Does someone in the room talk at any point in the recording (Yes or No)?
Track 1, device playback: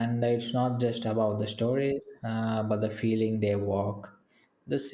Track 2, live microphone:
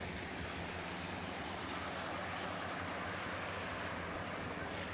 No